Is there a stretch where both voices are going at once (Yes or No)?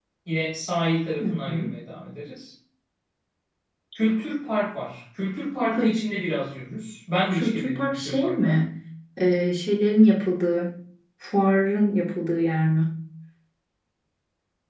Yes